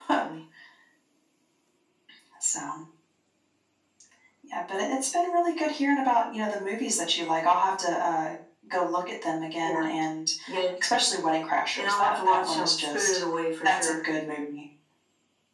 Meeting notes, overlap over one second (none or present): present